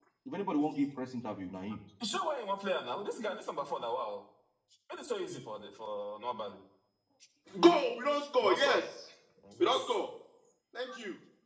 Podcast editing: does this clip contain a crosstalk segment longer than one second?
No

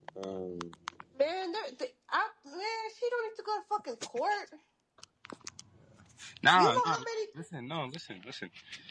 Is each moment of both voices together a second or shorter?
Yes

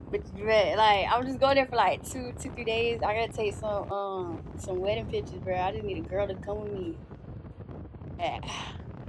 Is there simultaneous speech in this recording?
No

